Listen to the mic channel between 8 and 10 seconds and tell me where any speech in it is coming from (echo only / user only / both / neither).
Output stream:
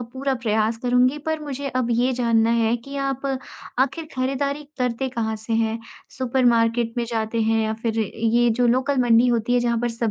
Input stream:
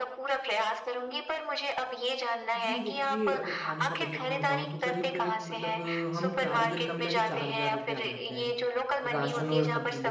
both